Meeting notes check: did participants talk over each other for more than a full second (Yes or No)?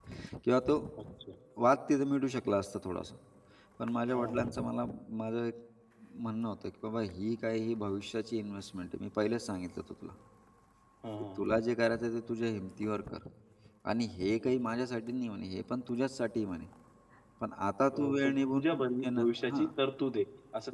Yes